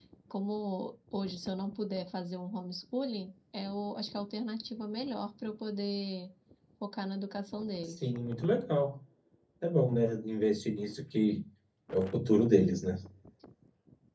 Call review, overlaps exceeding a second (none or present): none